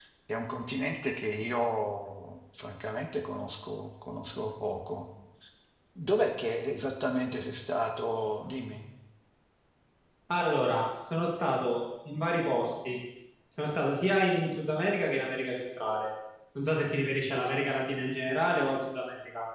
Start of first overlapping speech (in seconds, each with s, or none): none